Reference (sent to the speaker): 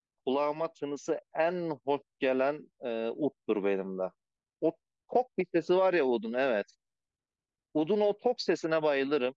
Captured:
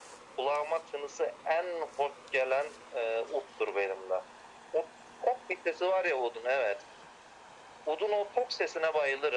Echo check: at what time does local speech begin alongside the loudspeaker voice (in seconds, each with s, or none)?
none